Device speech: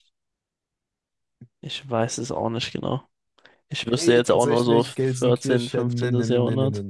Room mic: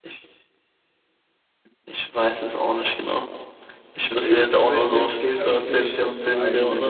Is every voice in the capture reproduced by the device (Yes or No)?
No